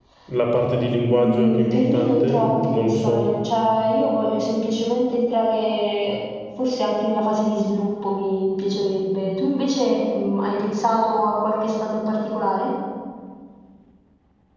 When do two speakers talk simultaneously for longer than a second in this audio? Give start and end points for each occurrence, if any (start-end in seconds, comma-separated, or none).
1.1-3.3